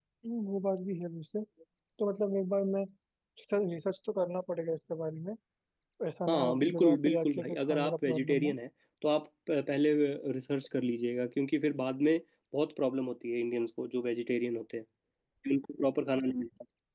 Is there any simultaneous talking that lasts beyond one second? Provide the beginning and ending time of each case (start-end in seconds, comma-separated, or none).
6.3-8.5